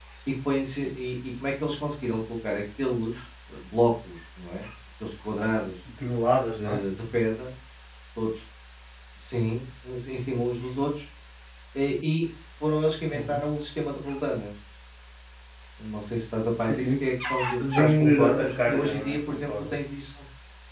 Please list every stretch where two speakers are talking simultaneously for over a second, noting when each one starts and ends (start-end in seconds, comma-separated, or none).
17.8-19.8